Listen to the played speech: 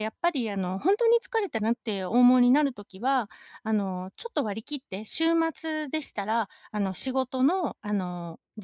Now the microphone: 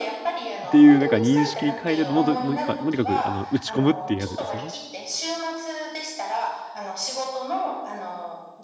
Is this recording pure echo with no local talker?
No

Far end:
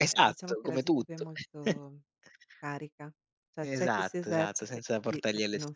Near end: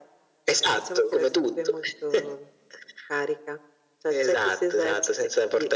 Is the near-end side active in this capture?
No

